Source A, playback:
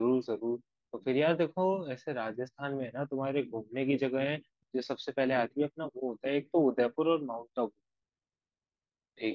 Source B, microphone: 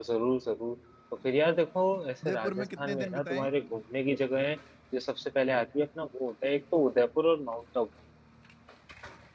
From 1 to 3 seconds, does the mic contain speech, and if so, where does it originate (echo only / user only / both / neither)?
both